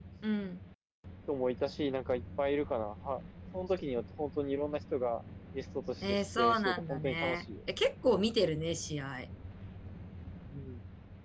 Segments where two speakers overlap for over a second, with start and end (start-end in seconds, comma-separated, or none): 6.0-7.4